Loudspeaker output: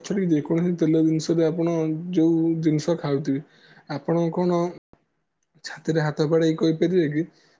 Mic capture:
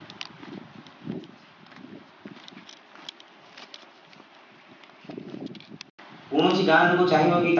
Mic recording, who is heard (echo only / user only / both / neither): user only